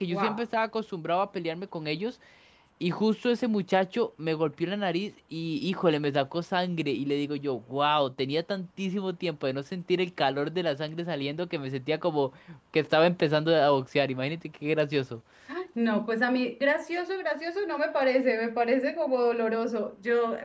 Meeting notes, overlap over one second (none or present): none